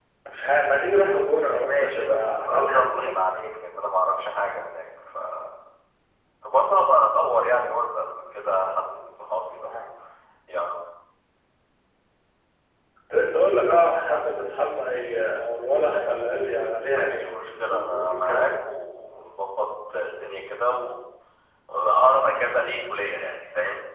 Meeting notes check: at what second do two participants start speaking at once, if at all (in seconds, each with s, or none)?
1.7 s